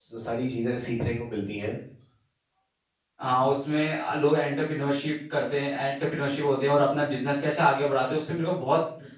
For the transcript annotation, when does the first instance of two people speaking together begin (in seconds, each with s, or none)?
none